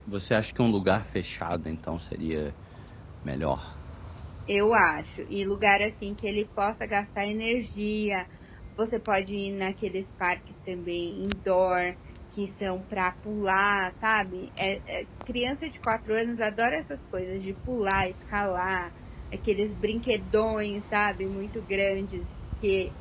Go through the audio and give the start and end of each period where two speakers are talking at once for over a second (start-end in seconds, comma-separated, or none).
none